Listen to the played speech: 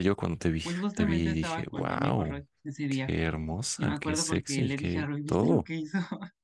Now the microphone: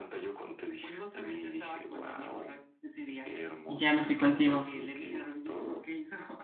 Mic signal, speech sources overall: both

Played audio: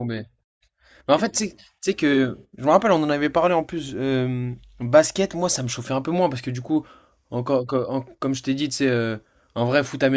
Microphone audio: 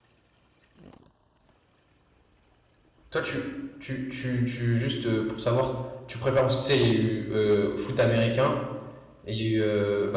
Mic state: user only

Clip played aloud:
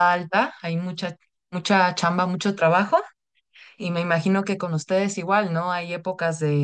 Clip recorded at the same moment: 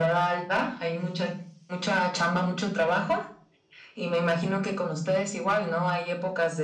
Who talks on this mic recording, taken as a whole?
echo only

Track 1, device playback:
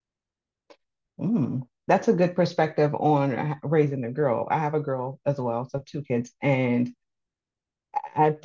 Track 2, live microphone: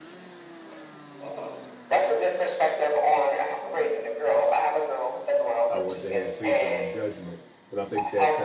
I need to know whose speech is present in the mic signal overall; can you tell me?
both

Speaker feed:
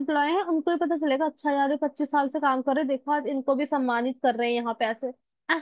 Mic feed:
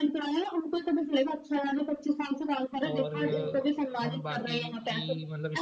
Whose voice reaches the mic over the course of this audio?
both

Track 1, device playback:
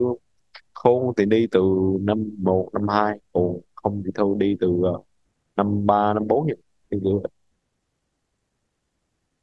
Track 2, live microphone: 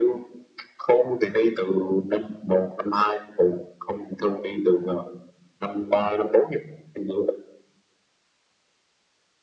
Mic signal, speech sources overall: echo only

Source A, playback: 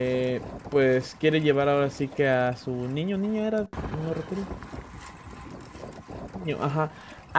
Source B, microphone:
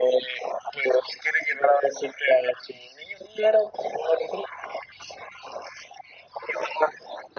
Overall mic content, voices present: echo only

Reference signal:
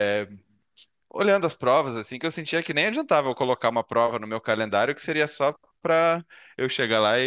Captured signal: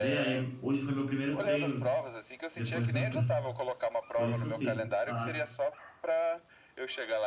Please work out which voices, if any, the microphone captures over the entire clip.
both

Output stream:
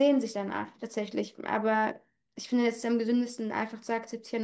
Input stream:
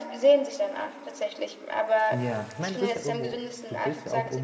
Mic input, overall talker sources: both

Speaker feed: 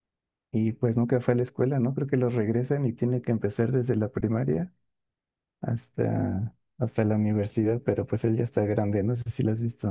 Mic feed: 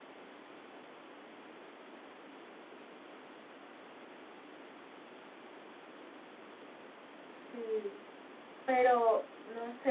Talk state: user only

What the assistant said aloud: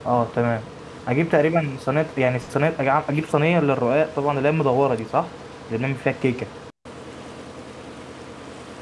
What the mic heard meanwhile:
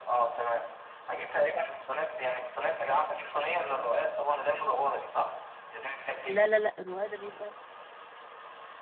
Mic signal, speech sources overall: both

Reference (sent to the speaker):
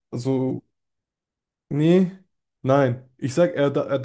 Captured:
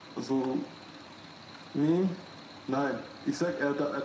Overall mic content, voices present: echo only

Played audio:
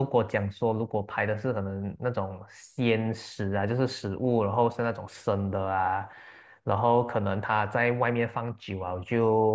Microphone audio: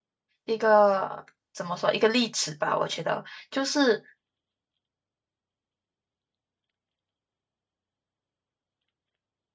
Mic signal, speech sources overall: user only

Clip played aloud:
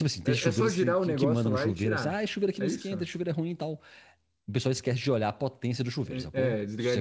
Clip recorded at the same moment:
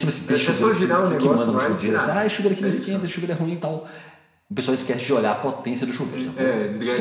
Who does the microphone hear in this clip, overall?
echo only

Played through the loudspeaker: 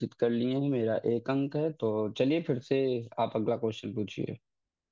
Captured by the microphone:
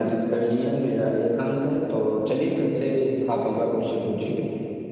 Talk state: echo only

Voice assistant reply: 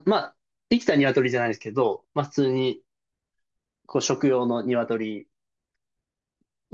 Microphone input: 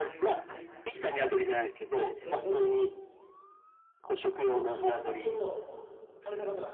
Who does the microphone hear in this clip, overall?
both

